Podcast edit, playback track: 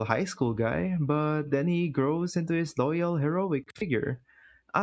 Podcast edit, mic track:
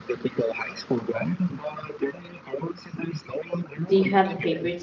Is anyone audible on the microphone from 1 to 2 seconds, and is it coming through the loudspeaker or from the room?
echo only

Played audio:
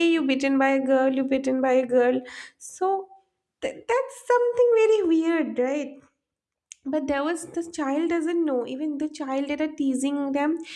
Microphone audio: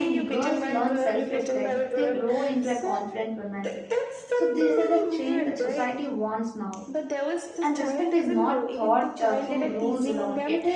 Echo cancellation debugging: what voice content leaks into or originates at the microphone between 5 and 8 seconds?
both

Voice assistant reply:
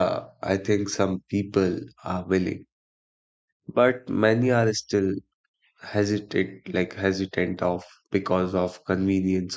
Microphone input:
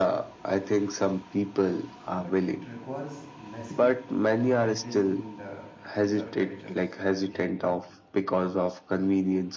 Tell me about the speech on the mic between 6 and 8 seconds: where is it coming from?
both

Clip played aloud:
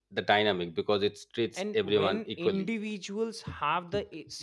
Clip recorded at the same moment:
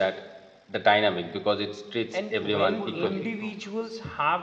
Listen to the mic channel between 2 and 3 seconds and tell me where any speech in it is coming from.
both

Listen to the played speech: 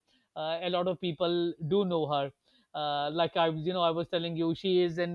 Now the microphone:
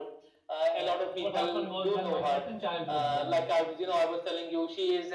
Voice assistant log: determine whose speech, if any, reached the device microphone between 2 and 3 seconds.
both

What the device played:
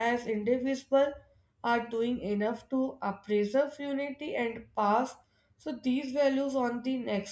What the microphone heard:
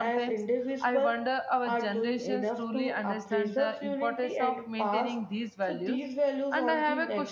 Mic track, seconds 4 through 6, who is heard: both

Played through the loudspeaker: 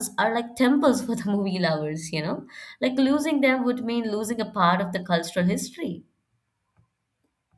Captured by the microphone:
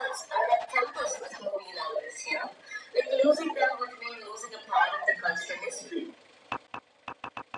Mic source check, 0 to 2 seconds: echo only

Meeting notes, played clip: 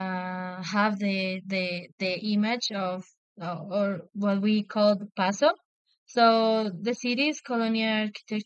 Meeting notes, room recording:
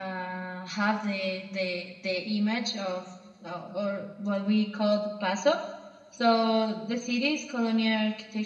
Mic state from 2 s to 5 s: echo only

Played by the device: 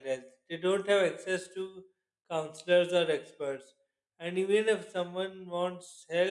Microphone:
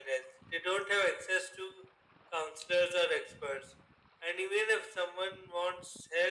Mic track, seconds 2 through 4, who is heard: echo only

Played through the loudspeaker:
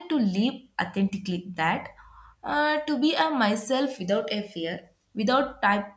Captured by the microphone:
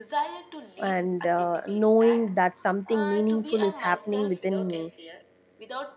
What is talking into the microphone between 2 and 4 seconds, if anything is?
both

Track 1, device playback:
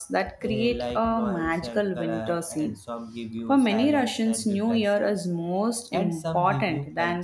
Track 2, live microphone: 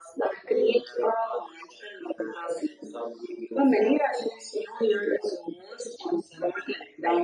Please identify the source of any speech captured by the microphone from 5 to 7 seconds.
echo only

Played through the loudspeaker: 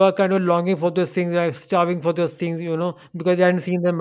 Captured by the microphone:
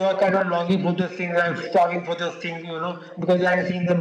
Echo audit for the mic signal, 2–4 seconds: echo only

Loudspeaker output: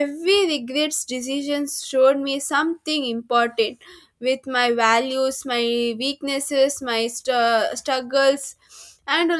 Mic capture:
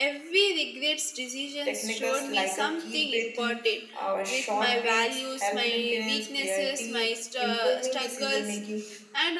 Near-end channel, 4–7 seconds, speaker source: both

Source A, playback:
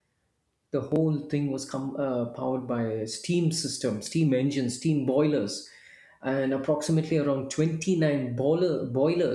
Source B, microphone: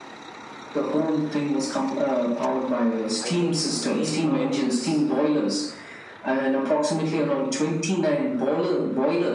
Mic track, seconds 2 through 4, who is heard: both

